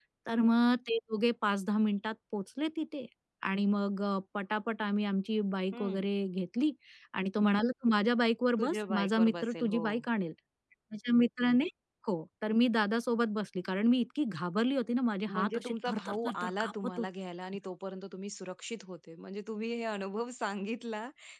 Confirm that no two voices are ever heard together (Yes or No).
No